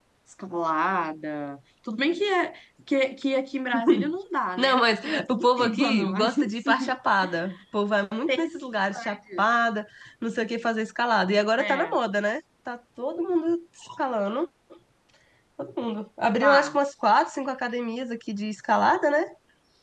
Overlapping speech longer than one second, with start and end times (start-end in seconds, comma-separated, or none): 4.6-7.0